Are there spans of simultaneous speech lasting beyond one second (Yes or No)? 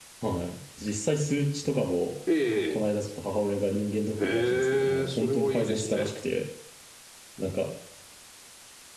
Yes